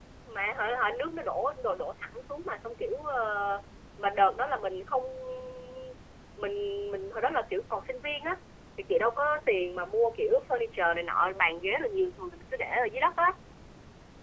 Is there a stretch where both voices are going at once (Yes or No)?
No